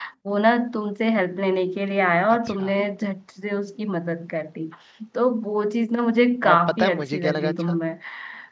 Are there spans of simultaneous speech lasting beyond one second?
Yes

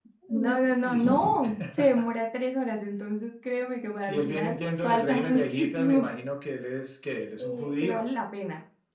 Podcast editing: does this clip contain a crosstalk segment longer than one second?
Yes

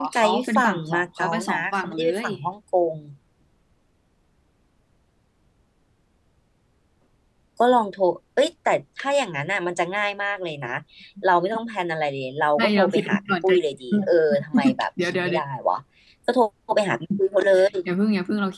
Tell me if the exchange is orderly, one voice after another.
No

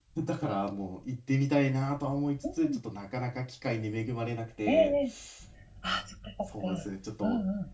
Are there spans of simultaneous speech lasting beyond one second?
No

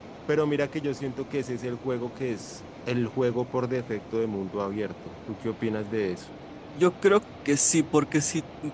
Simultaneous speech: No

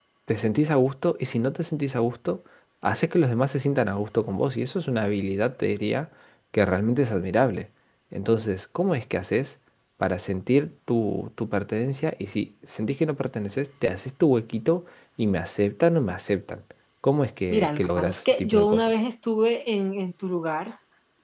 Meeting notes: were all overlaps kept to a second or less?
No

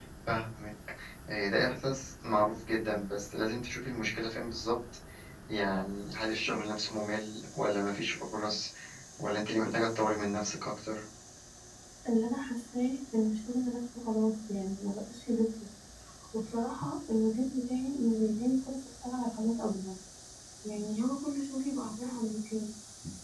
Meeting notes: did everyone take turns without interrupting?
Yes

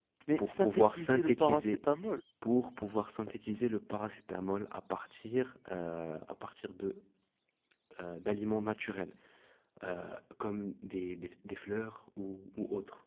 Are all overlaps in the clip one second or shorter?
No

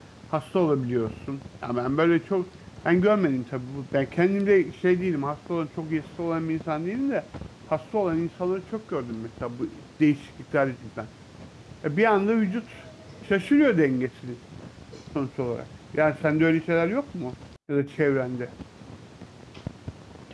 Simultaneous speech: No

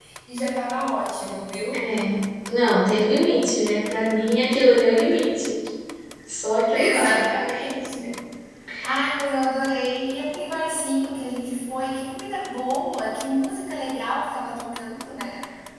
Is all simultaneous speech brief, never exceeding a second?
Yes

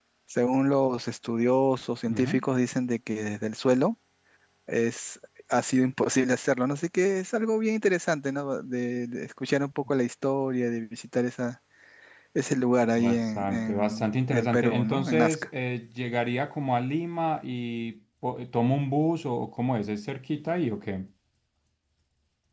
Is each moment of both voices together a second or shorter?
No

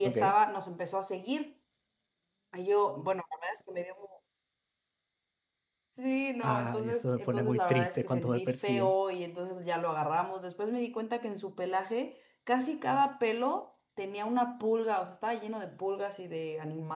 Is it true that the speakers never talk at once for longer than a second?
No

